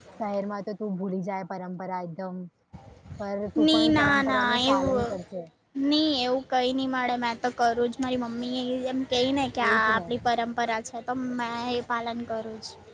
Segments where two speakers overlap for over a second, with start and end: 3.7-5.1

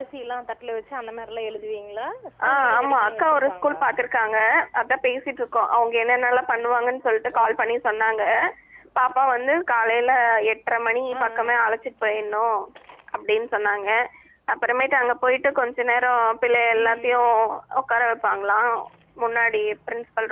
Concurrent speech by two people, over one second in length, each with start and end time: 2.5-3.8

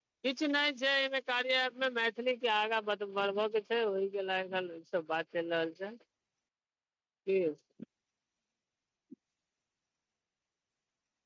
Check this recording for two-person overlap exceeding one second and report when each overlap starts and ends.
none

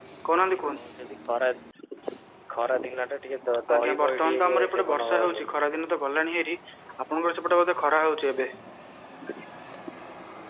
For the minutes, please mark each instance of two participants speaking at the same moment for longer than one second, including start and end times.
3.7-5.5

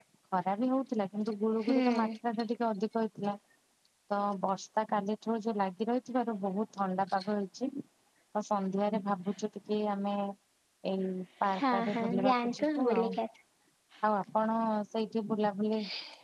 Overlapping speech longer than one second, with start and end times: 11.6-13.1

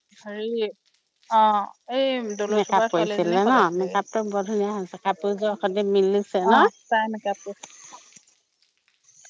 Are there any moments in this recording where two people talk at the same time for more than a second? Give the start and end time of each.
2.6-4.0

